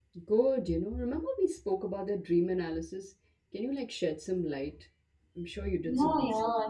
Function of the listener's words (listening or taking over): taking over